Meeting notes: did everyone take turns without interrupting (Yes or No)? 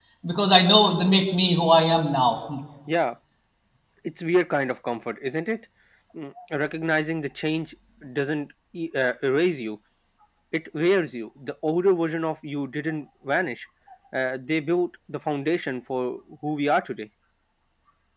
Yes